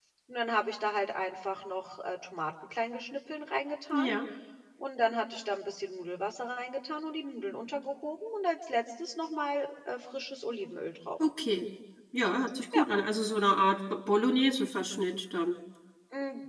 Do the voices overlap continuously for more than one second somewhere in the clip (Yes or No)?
No